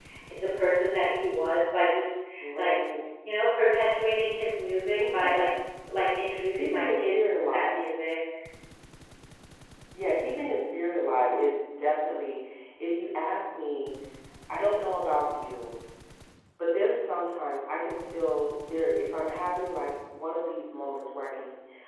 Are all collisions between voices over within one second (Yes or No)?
No